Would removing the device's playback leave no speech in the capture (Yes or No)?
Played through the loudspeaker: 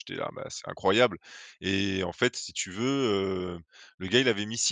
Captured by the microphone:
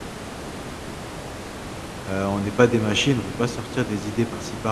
No